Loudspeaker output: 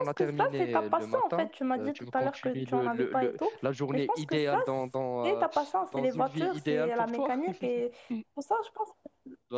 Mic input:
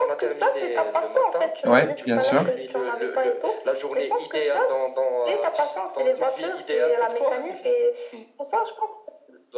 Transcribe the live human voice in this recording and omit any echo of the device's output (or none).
Ouais, bien sûr.